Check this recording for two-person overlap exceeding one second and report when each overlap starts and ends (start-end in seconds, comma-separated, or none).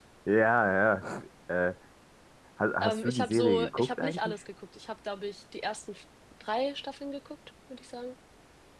2.8-4.3